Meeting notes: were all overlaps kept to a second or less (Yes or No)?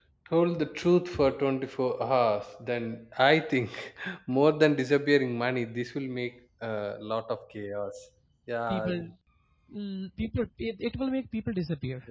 Yes